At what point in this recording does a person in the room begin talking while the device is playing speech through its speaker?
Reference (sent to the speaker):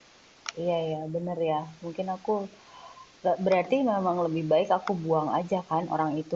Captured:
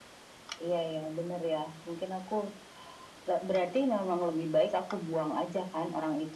none

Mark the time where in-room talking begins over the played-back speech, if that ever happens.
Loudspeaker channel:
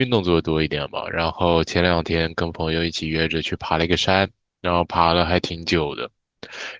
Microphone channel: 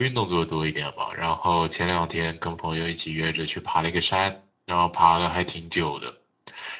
none

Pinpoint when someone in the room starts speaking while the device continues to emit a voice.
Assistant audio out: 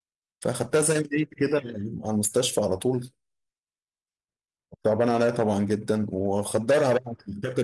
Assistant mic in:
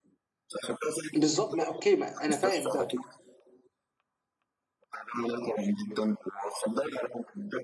1 s

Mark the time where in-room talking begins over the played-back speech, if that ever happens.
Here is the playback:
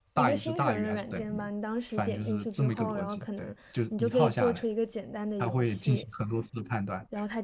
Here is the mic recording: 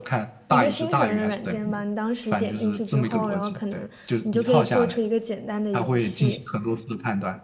none

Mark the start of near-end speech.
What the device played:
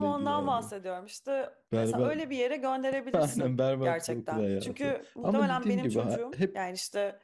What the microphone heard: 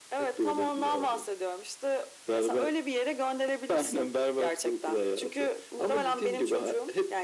none

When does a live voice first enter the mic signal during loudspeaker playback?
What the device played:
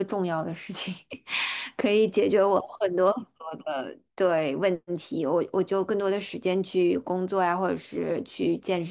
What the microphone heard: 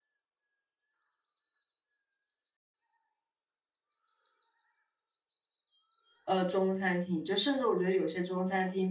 6 s

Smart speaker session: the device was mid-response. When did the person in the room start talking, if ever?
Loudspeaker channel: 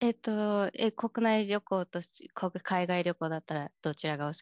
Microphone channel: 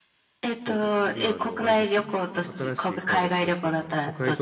1 s

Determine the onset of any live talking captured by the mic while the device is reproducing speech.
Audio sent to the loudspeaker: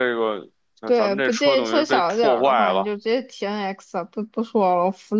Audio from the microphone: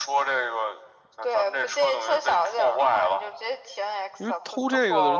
4 s

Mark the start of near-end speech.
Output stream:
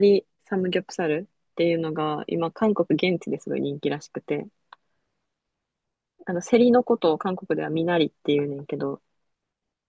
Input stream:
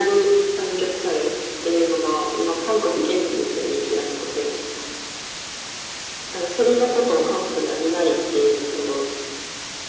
none

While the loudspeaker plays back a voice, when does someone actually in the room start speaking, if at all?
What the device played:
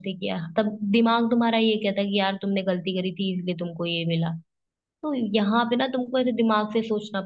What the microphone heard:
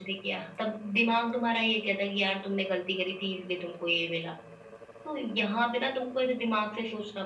none

